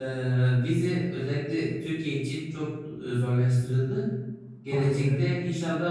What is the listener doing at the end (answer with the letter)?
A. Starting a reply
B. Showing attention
B